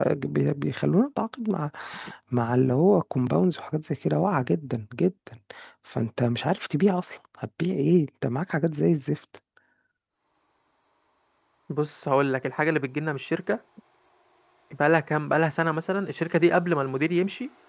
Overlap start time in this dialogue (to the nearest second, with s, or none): none